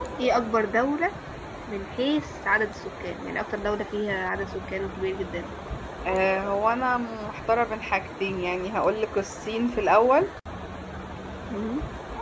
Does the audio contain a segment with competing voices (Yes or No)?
No